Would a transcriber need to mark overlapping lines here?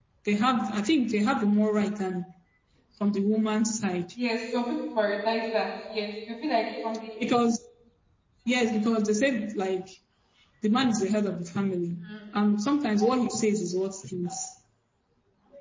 No

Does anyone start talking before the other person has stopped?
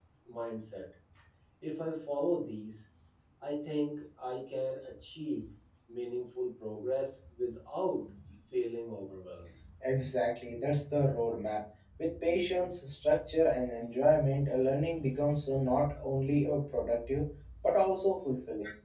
No

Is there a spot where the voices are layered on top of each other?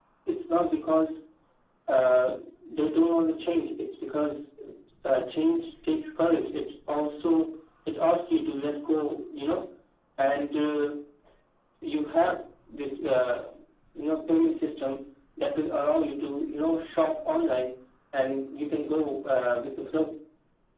No

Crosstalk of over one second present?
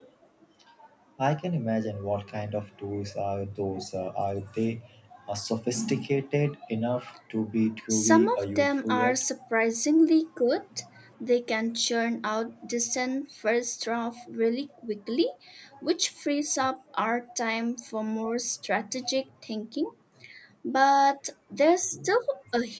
Yes, from 7.9 s

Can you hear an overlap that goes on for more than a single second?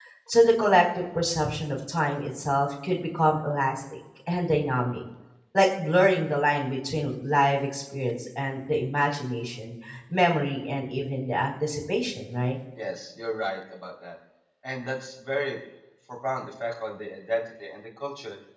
No

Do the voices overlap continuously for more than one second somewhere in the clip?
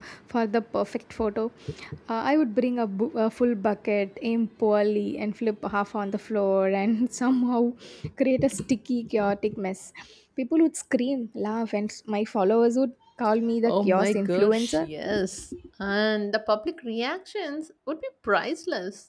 Yes, from 13.6 s

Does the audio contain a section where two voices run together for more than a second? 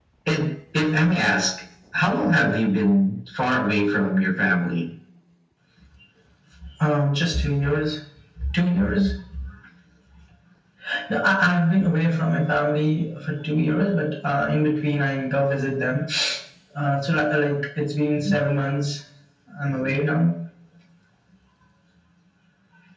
No

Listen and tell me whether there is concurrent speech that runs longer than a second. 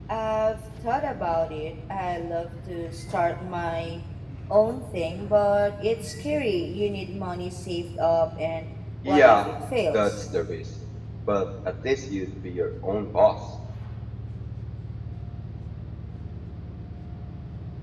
No

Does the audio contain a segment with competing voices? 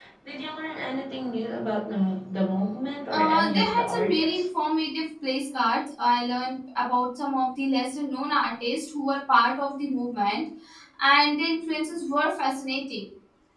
Yes, from 3.1 s

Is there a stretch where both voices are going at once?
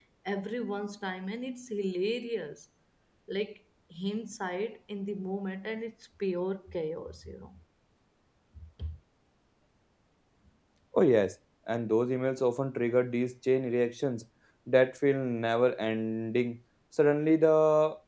No

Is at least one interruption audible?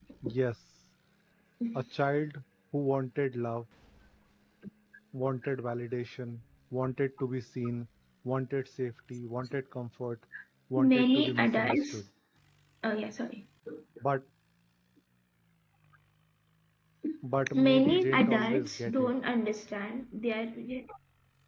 Yes, from 10.8 s

